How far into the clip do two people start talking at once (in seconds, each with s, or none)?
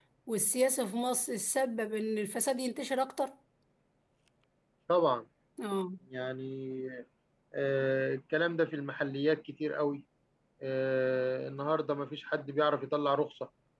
none